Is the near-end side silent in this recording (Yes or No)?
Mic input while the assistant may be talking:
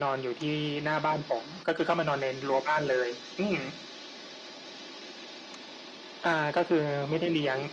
Yes